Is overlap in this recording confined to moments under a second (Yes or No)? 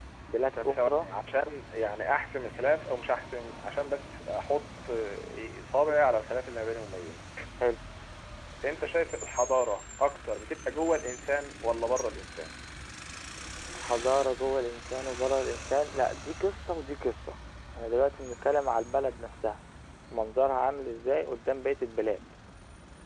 Yes